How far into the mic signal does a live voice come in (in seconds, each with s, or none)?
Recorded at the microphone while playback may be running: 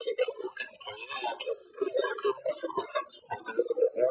none